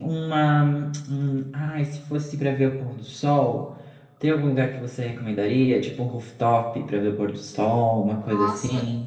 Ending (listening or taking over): taking over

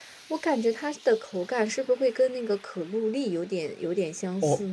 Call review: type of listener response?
taking over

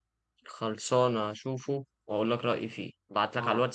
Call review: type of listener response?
listening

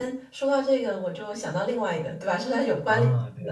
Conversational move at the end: taking over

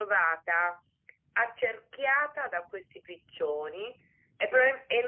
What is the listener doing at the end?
listening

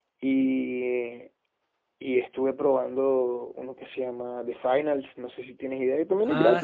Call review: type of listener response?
taking over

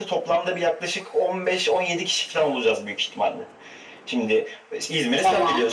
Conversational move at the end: listening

